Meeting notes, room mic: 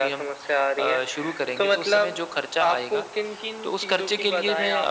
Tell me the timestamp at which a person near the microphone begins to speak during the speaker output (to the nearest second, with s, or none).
none